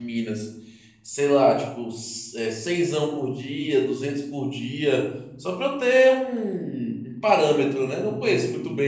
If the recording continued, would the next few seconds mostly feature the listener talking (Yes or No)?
Yes